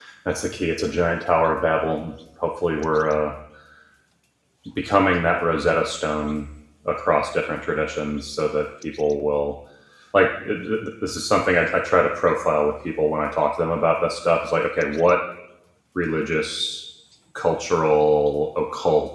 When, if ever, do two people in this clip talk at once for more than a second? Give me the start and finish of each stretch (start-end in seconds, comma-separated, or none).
none